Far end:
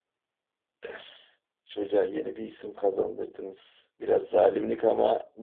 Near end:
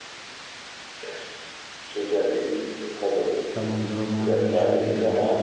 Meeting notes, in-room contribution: present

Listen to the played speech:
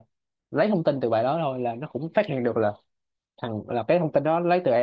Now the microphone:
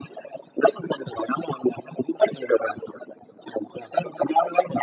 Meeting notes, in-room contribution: none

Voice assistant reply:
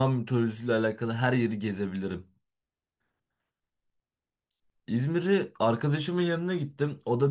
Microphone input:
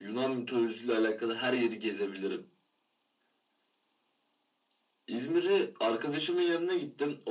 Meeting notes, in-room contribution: none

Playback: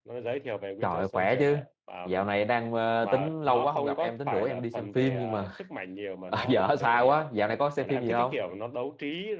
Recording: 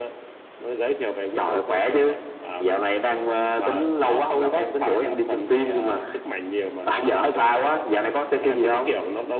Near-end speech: none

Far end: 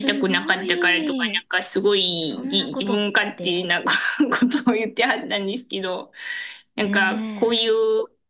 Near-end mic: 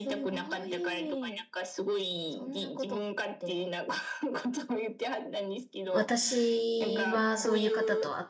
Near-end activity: present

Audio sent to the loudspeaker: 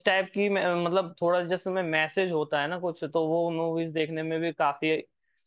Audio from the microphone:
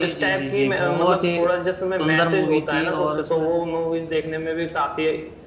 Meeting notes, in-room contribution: present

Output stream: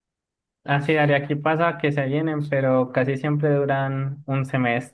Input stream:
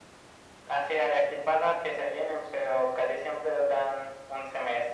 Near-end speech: none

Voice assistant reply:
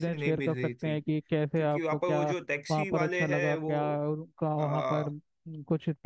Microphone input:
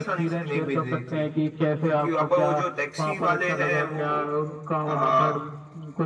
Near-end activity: none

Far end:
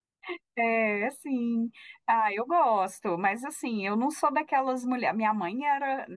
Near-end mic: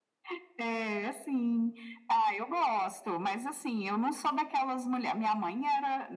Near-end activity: none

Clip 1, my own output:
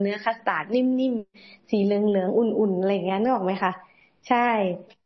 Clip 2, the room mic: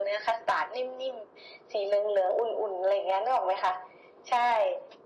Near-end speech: none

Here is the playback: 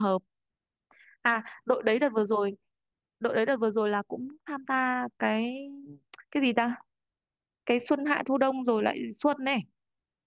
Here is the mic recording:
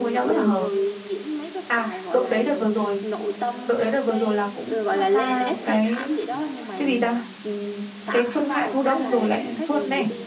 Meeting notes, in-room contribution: present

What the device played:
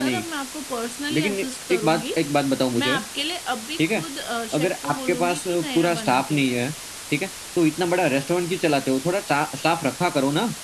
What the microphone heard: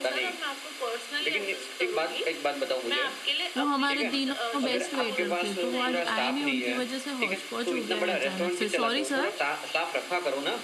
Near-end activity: present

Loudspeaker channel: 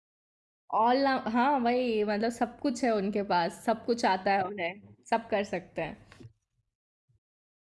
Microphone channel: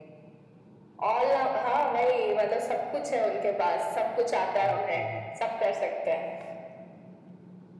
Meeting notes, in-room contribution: present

